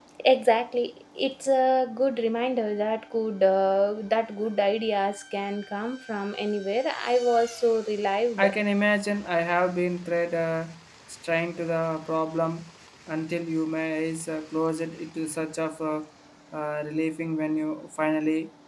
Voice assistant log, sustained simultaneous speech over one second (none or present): none